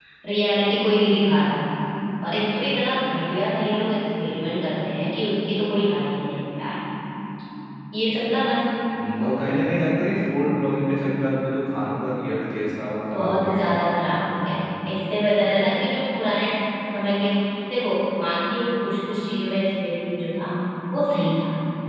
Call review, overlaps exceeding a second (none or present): none